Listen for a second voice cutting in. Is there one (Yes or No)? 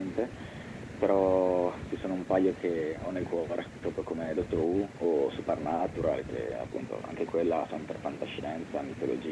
No